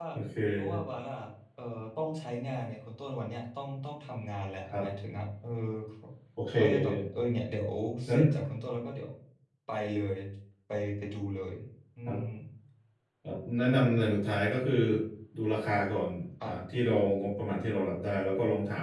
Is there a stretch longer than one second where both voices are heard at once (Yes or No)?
No